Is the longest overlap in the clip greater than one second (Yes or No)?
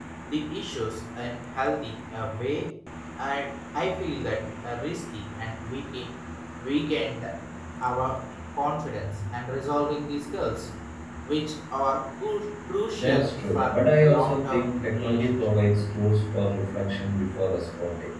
Yes